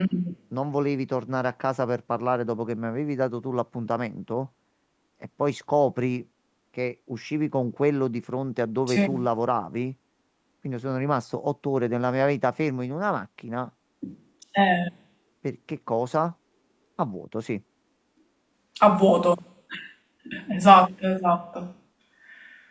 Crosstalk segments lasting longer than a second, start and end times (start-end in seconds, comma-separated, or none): none